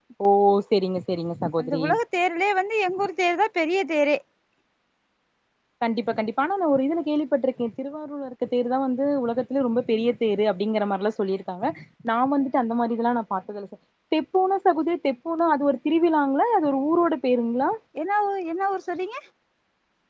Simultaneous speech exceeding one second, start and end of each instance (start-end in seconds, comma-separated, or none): none